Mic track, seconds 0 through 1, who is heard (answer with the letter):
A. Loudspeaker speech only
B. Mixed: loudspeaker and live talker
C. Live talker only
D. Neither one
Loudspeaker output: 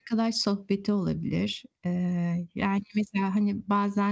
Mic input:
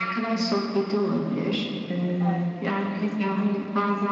A